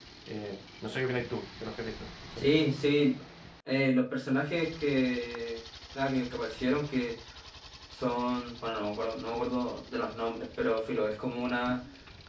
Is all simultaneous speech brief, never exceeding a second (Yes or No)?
Yes